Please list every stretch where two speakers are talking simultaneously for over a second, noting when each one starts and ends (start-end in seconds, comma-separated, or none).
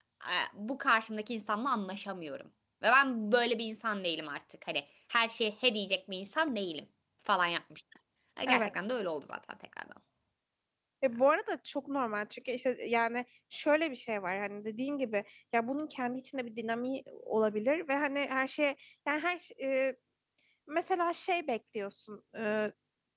none